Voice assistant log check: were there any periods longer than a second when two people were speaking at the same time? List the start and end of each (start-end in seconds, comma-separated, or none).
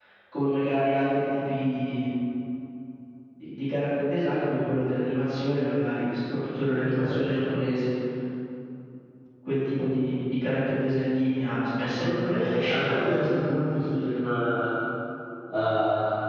11.9-13.3